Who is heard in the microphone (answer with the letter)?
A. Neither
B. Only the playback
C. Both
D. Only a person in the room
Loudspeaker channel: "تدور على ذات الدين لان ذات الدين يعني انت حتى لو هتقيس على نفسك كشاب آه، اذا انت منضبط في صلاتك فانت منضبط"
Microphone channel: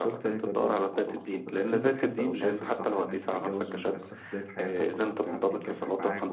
C